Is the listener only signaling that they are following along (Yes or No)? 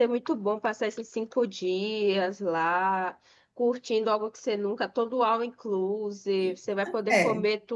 Yes